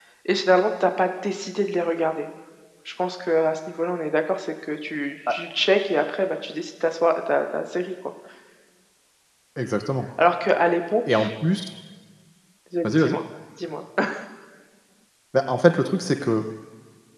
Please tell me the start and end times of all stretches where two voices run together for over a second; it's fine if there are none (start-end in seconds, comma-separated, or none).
none